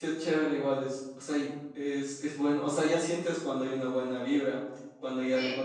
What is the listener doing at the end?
listening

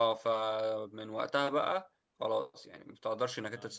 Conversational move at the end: listening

